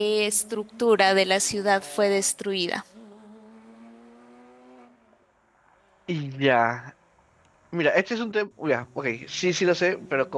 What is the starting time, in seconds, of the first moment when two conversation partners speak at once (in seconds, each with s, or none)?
none